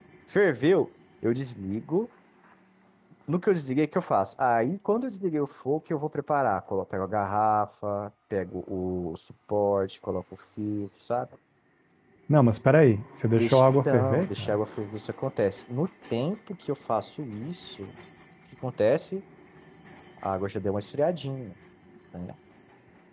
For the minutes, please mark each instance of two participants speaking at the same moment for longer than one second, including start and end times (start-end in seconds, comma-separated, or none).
13.3-14.5